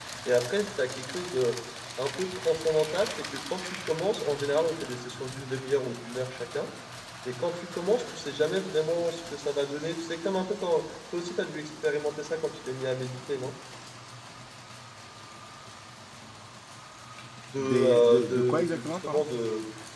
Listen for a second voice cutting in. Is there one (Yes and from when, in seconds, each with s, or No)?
Yes, from 17.6 s